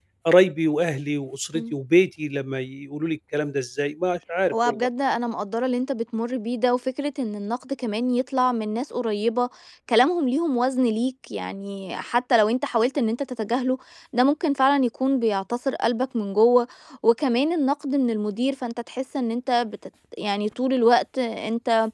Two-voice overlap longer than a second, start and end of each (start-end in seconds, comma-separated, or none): none